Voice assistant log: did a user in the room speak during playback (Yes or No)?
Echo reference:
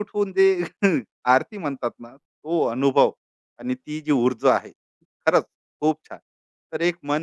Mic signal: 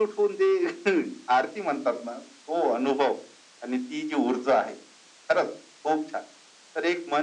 No